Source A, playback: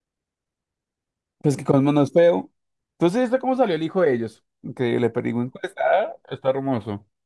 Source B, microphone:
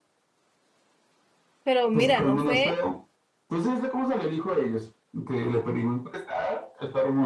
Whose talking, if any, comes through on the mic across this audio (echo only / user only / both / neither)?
both